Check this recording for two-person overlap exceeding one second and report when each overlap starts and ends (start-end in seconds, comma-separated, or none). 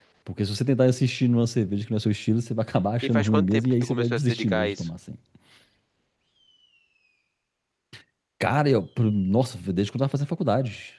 3.0-4.9